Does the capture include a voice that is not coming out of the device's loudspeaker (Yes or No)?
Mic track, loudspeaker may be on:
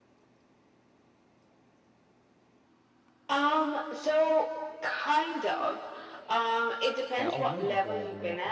Yes